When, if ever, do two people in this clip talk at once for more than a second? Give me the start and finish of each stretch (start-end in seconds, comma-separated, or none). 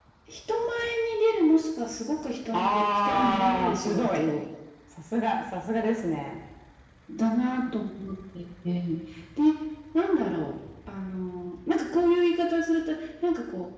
2.5-4.2